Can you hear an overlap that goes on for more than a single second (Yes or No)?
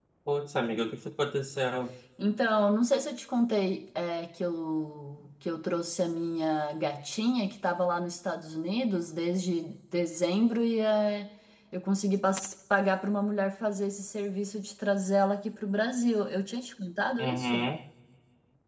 No